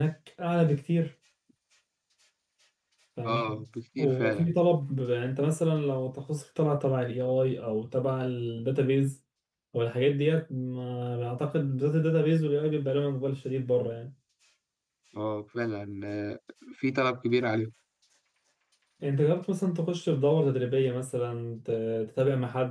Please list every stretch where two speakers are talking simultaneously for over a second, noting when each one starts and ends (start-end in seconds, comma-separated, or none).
none